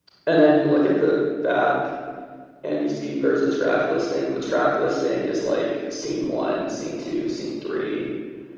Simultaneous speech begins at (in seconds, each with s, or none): none